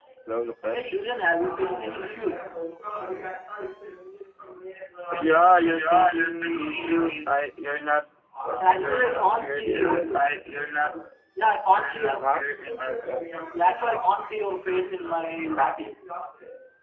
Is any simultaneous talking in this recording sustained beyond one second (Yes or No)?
Yes